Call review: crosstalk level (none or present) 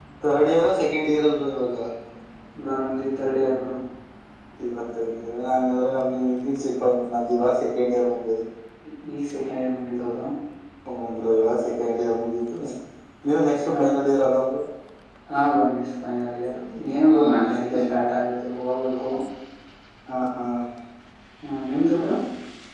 present